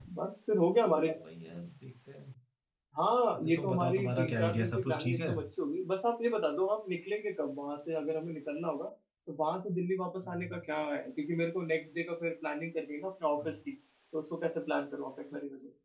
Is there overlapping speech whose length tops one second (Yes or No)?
Yes